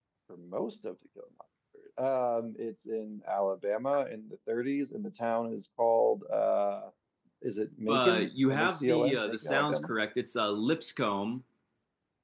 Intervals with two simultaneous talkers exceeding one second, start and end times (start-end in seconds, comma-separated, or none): 7.9-9.9